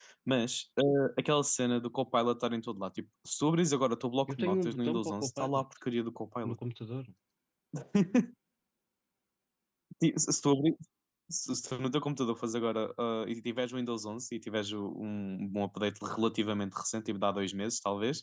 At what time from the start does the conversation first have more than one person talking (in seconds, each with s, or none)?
4.3 s